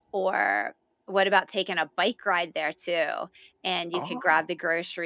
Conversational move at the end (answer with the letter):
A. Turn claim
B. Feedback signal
B